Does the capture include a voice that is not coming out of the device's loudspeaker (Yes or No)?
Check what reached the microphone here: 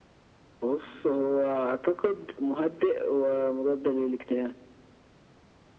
No